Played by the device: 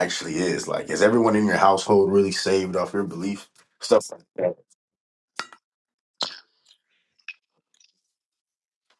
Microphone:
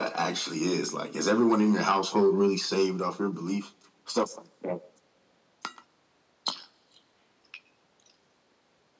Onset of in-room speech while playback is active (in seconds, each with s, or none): none